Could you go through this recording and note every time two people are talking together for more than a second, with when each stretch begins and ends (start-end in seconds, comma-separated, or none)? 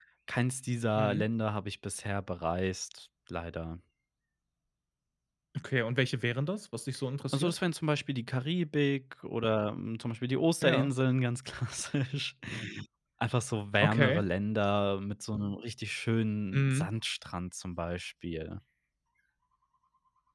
none